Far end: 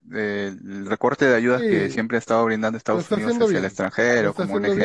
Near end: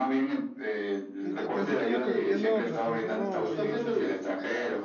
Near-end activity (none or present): present